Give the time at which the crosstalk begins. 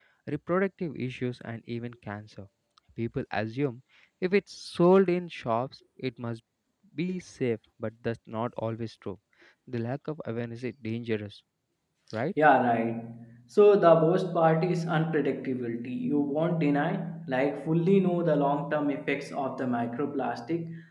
none

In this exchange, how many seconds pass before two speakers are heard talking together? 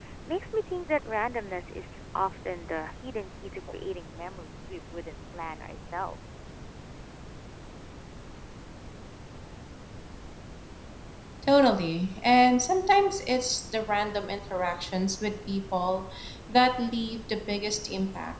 none

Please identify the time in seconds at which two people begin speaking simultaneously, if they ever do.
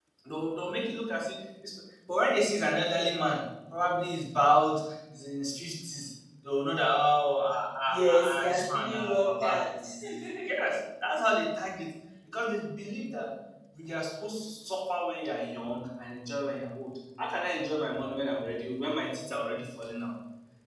7.9 s

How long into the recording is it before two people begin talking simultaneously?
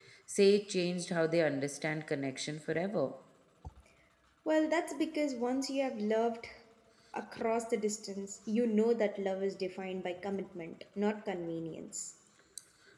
none

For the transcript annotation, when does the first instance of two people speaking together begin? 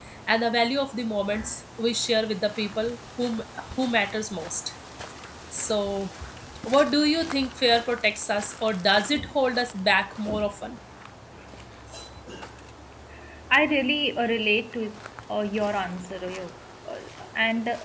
none

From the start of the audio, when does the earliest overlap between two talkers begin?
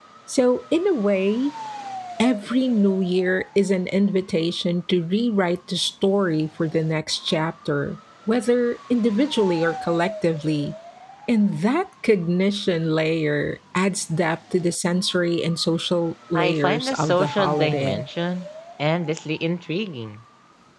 16.4 s

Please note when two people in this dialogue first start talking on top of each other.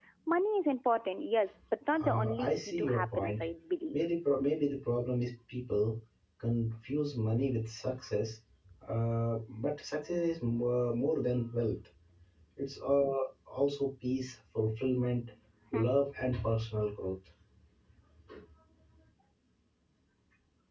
1.9 s

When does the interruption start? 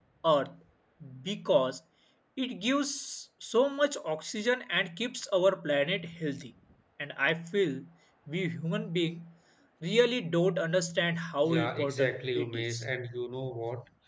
11.4 s

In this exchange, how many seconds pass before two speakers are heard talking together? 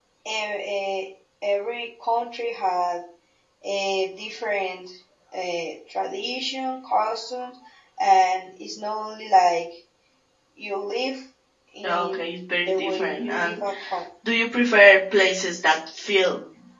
11.8 s

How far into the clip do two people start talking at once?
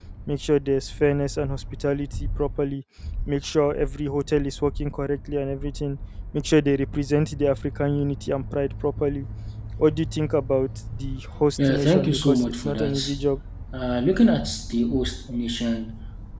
11.6 s

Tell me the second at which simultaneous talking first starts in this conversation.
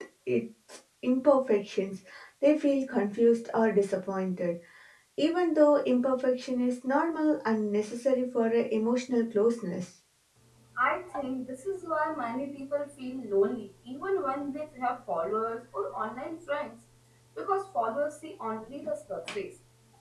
none

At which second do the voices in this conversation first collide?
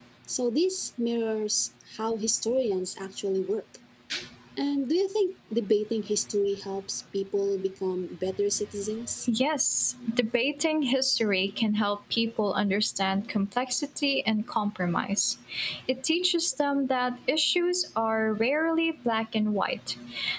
none

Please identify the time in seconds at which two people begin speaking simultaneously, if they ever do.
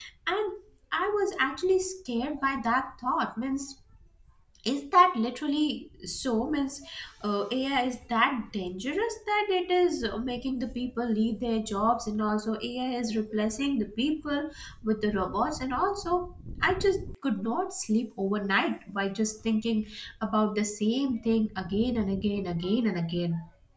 none

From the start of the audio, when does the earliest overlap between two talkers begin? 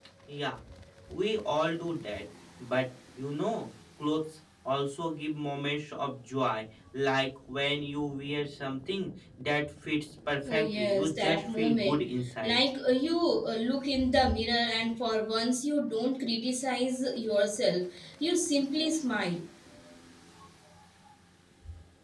10.5 s

